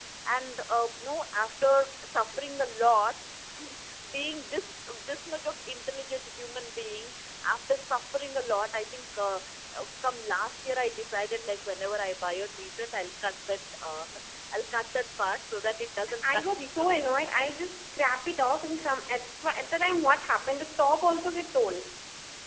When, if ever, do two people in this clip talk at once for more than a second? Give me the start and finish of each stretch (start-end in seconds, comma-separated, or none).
16.2-17.5